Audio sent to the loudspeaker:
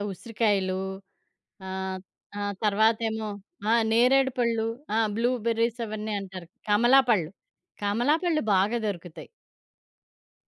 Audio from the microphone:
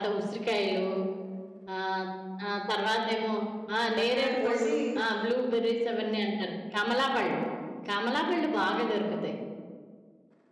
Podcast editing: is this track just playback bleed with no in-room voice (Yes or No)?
No